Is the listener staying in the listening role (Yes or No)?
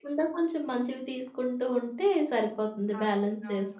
No